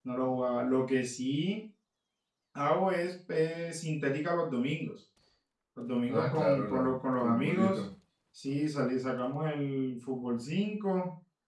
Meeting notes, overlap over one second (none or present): present